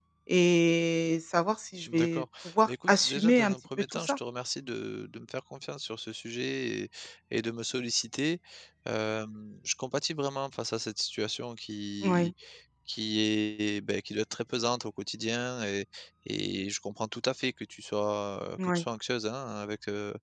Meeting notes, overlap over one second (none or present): present